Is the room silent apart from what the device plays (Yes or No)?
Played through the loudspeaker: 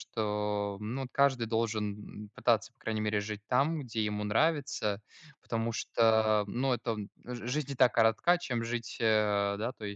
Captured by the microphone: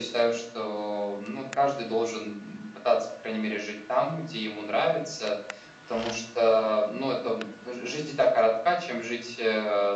Yes